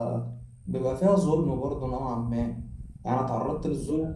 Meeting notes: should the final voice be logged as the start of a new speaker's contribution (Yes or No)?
No